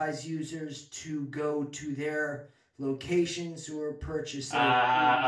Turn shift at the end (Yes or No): Yes